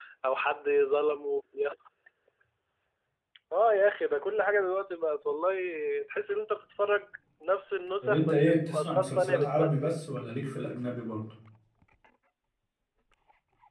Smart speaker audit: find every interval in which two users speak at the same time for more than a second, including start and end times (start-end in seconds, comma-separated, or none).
8.0-9.8